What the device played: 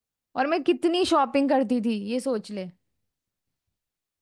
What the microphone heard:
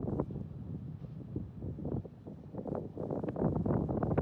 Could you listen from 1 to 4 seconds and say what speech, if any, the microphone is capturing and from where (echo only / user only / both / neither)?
neither